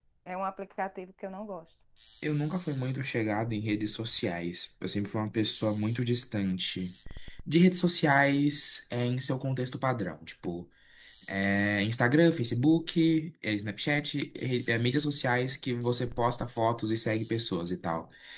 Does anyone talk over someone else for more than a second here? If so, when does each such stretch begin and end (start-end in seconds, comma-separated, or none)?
none